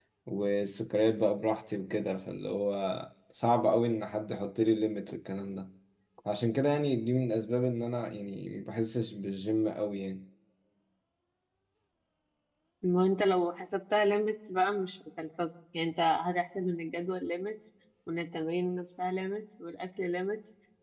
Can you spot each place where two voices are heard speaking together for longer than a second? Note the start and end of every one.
none

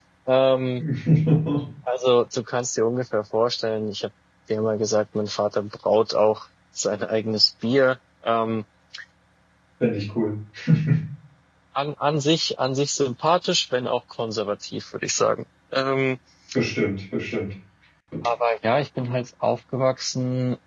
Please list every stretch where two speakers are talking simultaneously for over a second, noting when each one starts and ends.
none

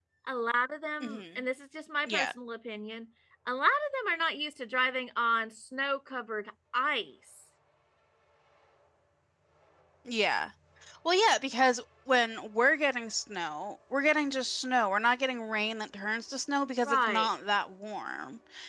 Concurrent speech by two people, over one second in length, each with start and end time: none

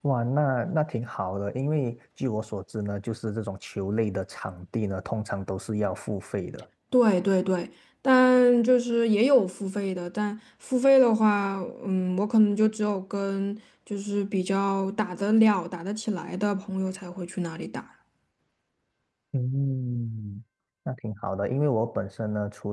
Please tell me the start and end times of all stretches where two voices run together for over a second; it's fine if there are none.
none

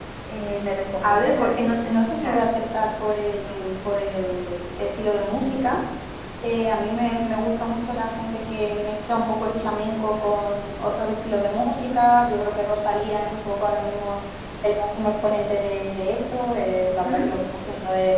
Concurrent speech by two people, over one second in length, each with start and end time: 1.0-2.5

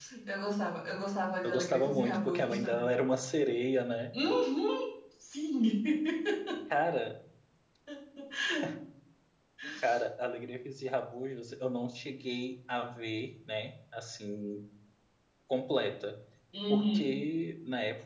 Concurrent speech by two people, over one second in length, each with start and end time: 1.4-3.0

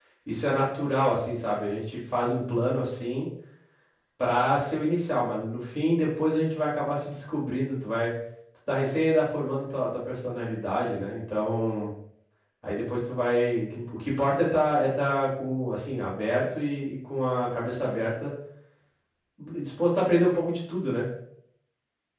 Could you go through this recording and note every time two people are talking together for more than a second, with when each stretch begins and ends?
none

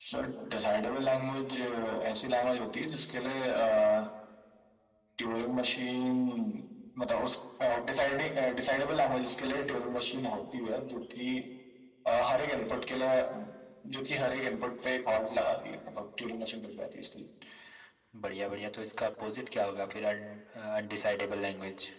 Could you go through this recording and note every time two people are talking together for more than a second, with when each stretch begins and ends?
none

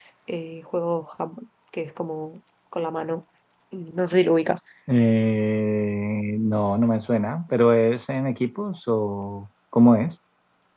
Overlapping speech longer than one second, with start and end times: none

